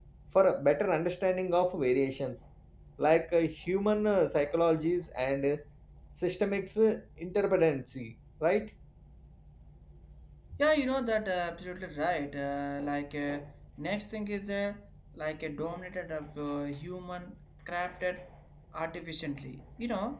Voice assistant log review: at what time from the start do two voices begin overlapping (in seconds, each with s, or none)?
none